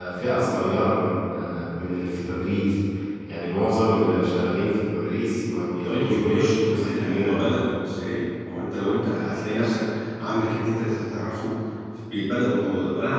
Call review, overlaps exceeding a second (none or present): present